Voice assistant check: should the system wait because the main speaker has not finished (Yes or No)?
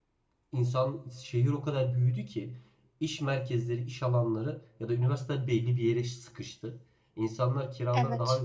Yes